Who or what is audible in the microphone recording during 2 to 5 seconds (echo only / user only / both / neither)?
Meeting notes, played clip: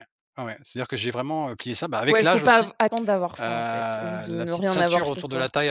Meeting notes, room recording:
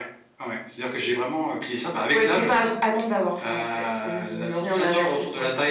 echo only